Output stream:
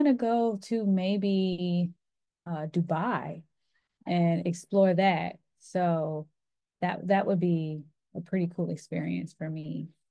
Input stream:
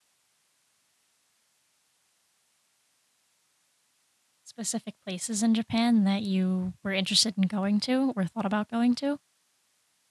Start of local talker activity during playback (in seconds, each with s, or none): 4.4 s